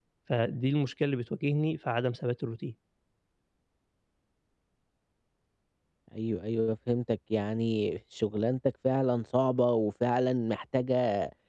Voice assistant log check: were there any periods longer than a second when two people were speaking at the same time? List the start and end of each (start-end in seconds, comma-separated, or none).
none